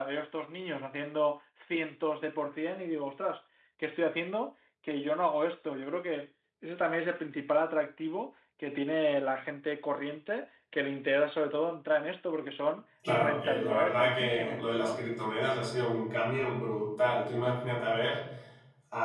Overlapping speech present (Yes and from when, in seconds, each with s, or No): Yes, from 13.0 s